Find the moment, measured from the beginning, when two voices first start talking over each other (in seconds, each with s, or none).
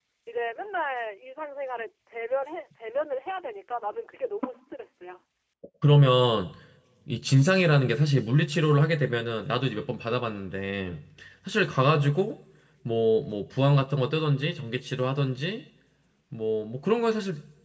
none